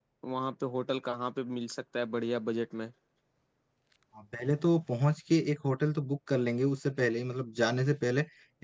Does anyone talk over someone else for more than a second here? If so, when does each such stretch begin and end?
none

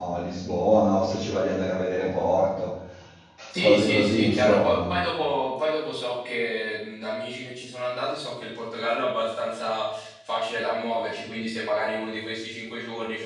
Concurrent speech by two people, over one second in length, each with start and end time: 3.6-4.8

